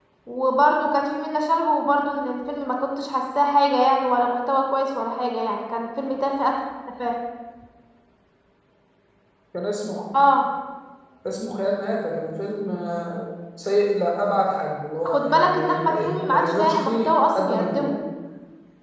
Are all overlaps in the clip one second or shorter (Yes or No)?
No